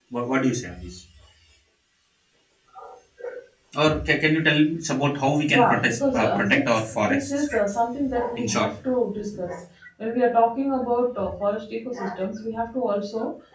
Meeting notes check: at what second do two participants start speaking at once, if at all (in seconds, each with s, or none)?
5.5 s